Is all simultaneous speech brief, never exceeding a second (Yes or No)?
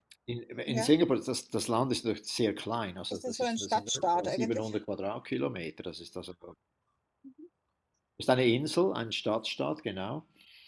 No